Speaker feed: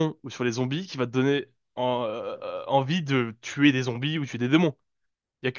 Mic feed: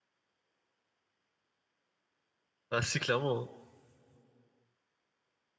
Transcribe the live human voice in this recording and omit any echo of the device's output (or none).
Ah si, clairement. hein.